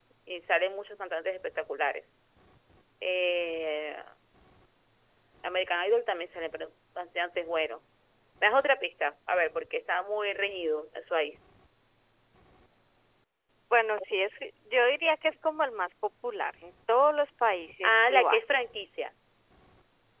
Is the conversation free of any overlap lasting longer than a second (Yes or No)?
Yes